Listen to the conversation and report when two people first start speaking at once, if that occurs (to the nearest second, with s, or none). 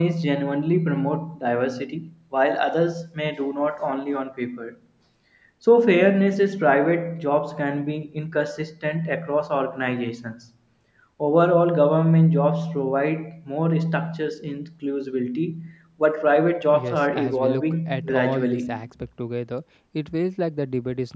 17 s